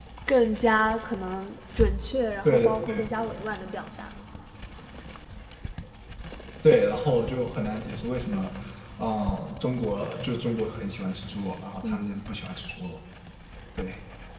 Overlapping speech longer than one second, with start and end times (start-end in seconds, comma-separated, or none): none